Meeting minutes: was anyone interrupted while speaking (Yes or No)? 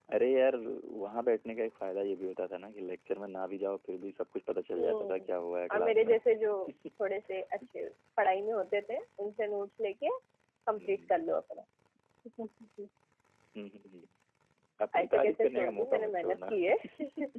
Yes